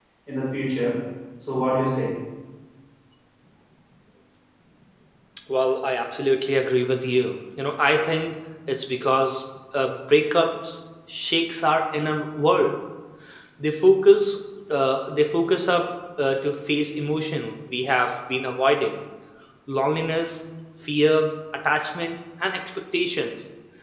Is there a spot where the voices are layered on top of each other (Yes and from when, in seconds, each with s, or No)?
No